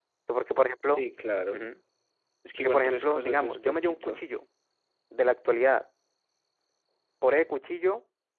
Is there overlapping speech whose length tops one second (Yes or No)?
Yes